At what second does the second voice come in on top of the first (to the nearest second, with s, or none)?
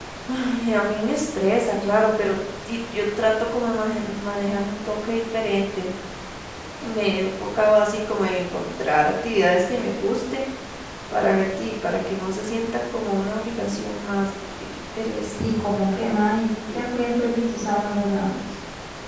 none